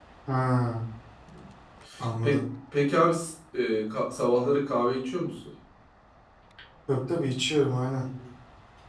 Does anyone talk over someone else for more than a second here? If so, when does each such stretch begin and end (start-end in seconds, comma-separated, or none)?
none